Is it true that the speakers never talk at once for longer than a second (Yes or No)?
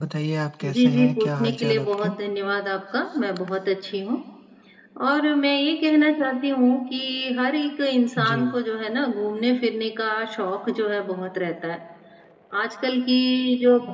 No